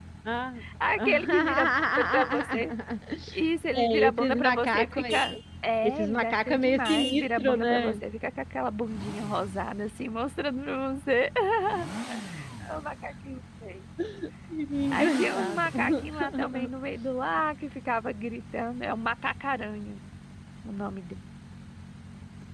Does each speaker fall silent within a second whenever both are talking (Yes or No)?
No